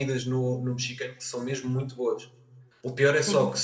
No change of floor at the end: Yes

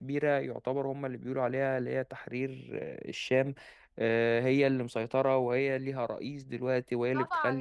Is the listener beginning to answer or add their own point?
Yes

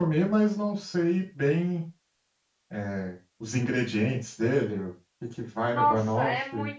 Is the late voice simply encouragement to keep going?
No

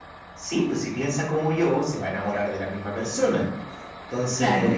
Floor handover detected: No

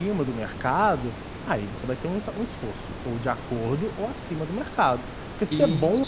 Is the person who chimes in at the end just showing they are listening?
Yes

